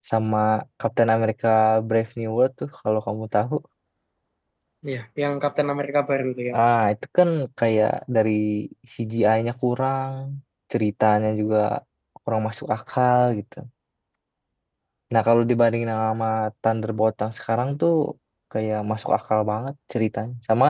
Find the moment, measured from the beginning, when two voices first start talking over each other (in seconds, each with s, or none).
none